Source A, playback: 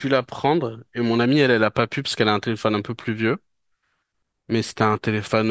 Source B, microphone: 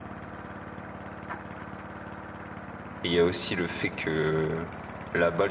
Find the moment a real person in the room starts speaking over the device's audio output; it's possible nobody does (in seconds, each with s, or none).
3.0 s